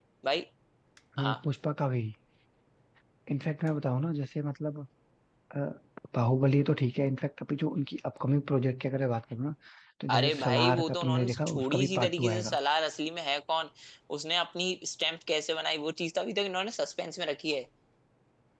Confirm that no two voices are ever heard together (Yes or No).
No